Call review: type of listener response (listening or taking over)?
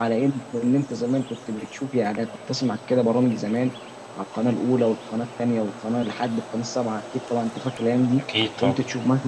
listening